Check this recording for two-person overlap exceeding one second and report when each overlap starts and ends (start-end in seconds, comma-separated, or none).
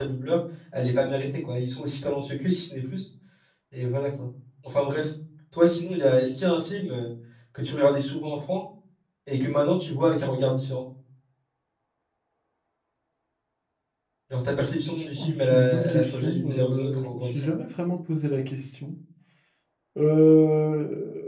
15.2-17.5